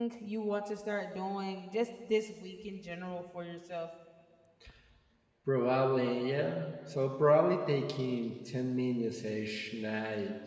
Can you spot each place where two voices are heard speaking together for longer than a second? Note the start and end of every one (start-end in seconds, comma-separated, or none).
none